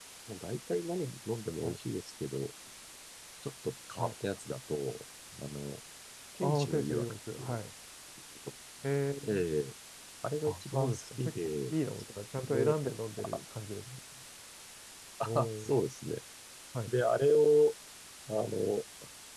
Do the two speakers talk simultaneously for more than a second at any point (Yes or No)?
Yes